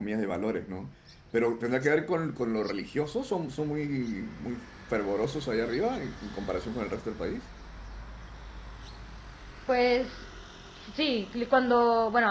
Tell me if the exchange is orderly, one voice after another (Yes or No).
Yes